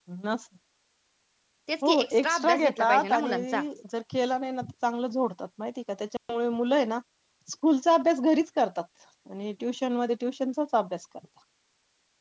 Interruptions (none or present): present